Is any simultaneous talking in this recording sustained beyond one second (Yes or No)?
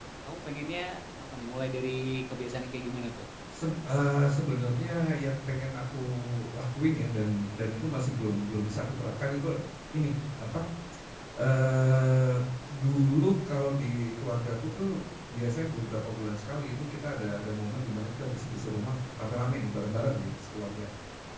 No